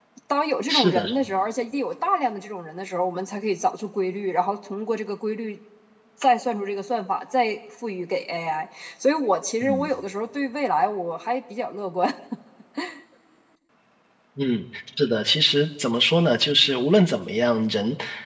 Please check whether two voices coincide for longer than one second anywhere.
No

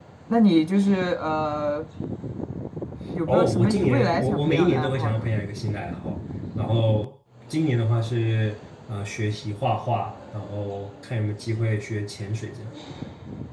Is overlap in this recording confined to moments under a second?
No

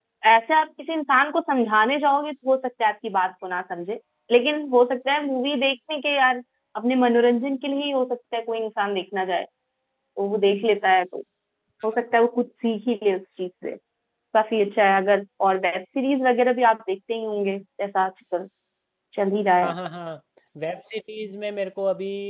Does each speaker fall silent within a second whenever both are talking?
Yes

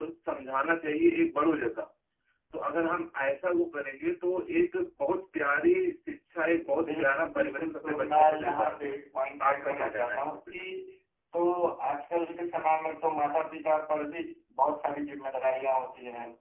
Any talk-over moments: Yes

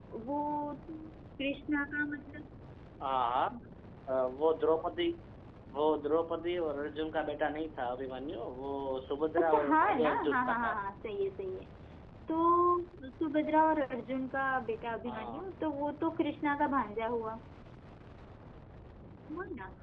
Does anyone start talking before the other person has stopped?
Yes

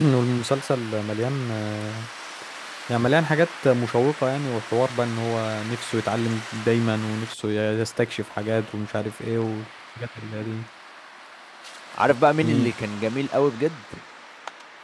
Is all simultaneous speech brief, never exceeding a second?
Yes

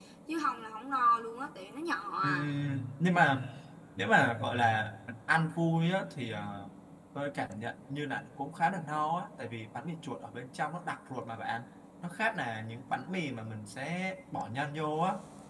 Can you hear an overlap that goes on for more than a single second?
No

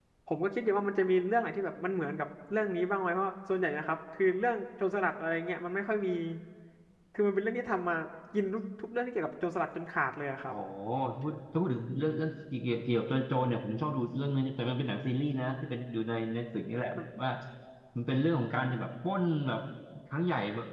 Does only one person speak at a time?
Yes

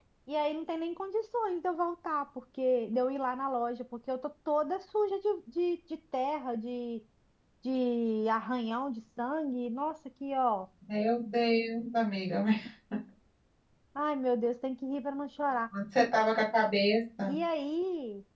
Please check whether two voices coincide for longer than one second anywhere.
No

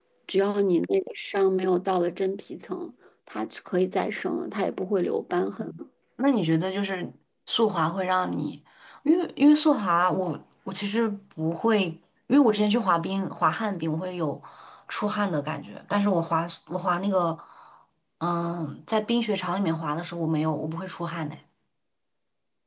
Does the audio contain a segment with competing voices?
No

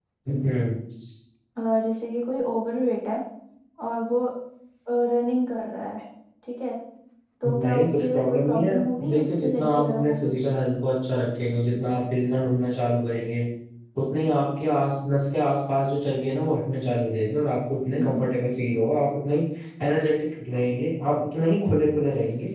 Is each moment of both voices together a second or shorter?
No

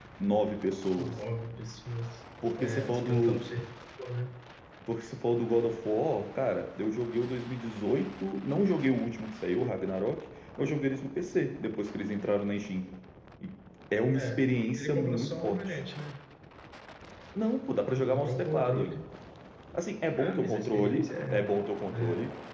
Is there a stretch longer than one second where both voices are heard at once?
Yes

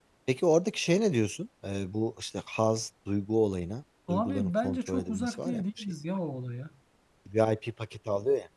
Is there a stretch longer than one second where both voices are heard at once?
Yes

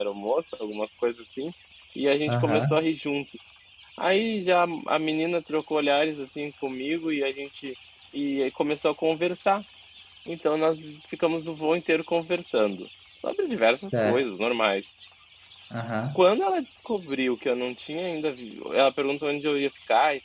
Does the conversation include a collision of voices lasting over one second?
No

